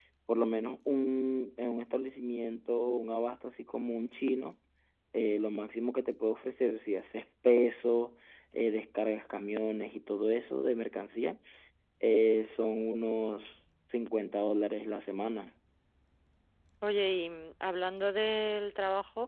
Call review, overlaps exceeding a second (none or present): none